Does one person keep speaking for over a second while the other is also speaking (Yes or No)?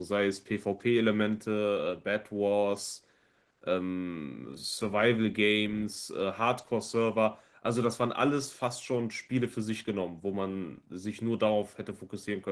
No